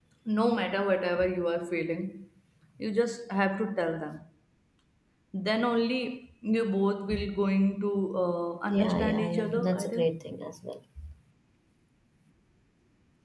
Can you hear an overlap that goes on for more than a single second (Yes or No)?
Yes